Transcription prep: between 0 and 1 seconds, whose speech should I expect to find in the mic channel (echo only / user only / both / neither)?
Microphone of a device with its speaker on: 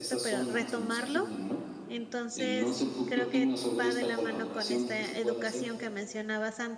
both